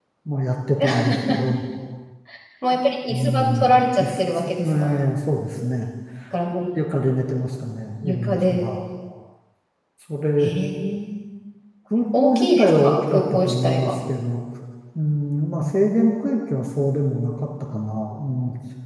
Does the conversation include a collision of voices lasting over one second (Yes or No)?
Yes